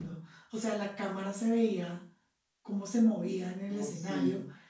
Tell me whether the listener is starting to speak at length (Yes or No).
No